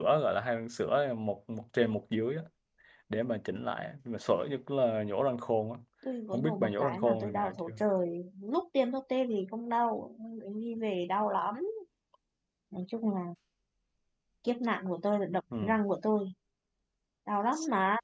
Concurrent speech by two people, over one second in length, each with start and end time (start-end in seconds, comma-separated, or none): 6.3-7.7